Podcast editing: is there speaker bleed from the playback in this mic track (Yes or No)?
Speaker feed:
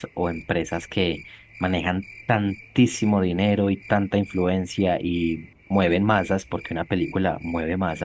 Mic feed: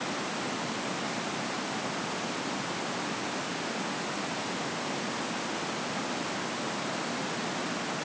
No